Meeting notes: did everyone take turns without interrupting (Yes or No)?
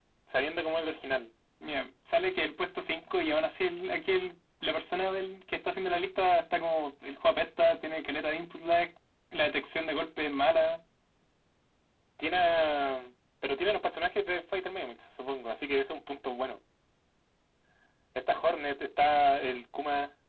Yes